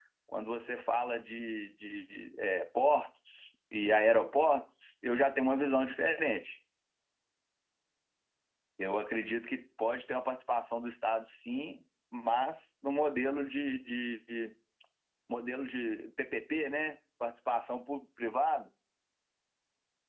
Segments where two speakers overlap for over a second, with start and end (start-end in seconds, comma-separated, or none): none